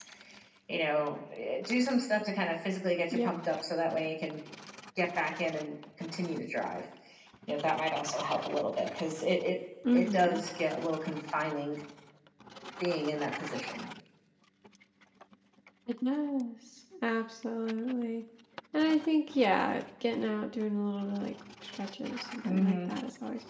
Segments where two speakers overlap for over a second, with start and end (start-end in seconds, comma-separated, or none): none